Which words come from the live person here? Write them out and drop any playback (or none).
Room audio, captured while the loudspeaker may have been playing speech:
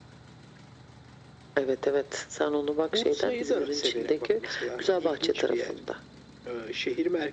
none